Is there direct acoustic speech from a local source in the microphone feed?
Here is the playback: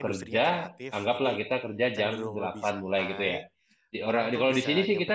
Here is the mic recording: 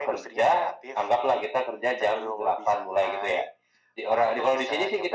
No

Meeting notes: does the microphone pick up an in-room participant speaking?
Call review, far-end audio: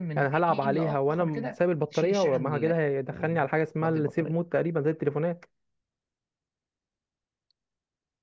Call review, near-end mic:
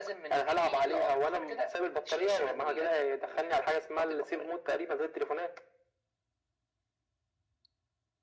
No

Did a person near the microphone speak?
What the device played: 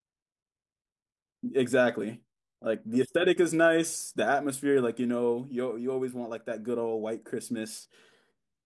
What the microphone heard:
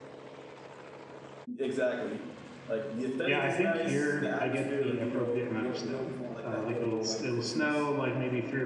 Yes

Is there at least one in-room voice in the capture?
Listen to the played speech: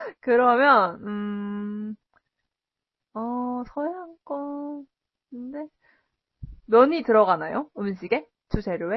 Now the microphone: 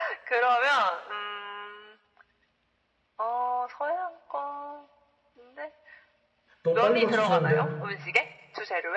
Yes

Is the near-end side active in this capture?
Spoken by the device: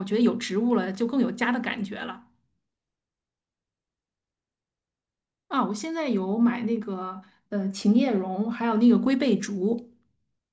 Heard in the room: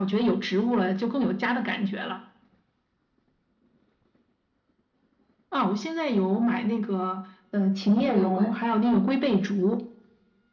Yes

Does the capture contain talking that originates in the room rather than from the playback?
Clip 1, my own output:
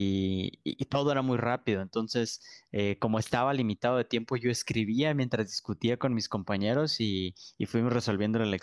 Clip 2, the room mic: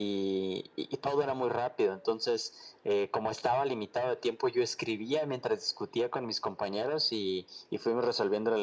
No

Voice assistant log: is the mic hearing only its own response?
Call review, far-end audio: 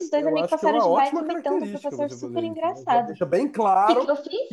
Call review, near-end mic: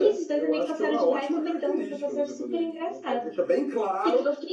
Yes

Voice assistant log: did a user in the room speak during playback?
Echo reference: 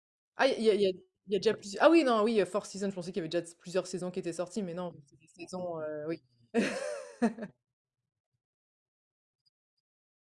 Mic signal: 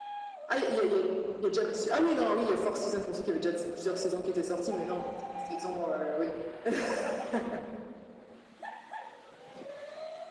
No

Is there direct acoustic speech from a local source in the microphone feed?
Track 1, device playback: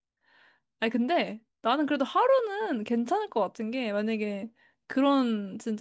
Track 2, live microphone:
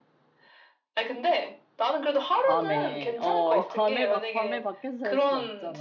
Yes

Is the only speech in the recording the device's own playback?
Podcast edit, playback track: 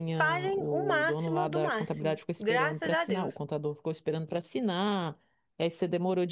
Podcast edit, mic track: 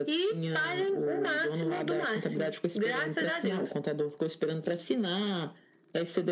Yes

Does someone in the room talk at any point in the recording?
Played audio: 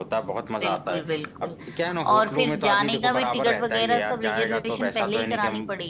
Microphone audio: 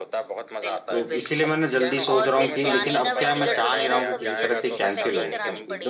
Yes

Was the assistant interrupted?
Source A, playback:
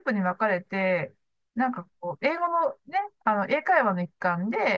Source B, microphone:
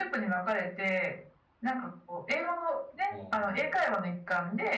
Yes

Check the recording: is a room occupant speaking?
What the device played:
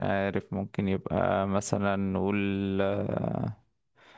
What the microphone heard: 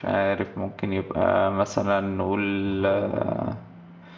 Yes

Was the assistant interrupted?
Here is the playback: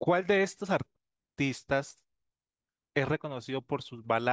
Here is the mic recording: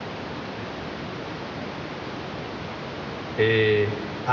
Yes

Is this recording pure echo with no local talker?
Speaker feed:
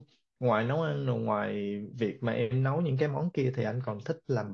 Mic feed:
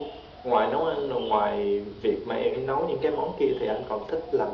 Yes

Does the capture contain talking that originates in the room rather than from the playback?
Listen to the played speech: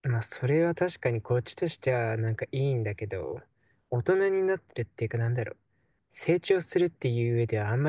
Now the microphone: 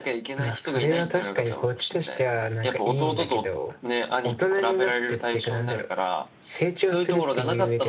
Yes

